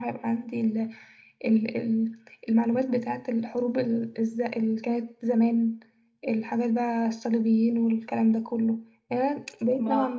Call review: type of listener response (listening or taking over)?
listening